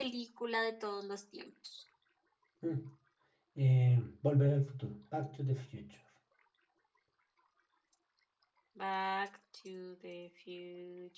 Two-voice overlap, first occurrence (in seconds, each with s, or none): none